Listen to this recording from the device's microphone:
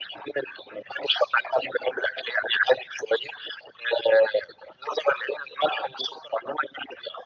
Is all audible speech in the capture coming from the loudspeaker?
Yes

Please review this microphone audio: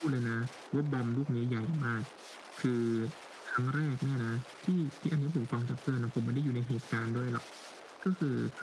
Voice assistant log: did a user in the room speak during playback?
No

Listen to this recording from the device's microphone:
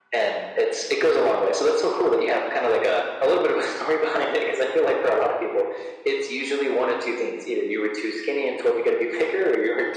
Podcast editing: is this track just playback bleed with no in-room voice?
Yes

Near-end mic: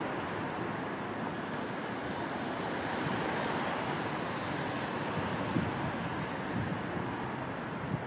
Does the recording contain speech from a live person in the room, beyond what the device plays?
No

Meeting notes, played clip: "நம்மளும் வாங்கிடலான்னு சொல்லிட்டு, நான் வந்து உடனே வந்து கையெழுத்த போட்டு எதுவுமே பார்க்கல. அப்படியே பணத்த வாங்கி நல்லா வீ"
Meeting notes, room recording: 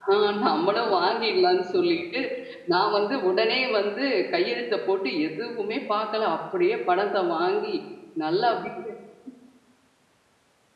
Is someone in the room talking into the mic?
No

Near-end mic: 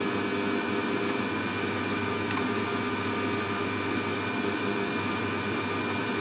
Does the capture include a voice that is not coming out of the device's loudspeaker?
No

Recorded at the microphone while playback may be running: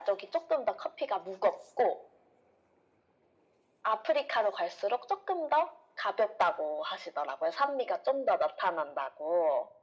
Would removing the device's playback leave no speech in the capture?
Yes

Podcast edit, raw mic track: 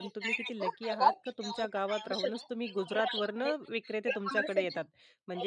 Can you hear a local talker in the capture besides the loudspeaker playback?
Yes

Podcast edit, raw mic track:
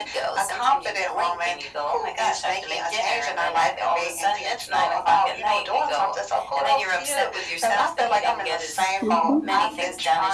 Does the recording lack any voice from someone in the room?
No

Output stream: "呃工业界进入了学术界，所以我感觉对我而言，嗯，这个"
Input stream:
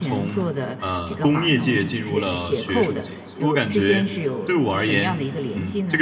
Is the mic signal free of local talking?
No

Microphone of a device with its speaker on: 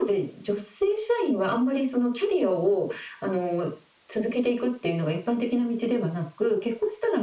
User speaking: No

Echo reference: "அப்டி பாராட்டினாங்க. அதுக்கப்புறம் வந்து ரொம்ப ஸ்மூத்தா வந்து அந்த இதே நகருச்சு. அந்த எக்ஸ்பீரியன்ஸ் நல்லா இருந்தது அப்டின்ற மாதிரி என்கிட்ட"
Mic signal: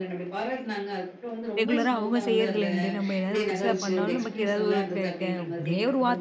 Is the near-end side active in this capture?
Yes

